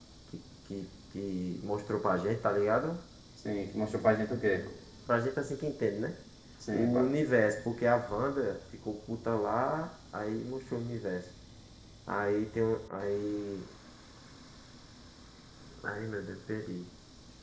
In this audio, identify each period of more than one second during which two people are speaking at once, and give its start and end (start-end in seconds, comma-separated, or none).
none